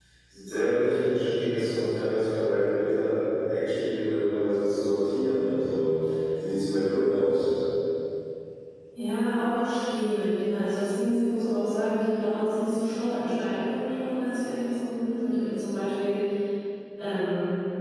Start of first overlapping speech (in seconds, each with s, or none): none